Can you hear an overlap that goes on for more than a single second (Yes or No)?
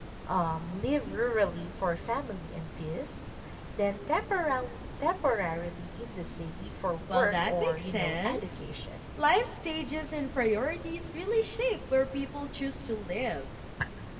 Yes